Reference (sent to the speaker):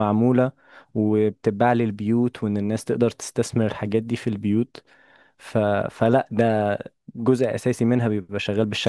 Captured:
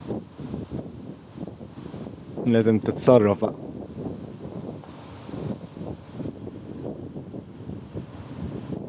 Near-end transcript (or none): لازم تتصرف بقى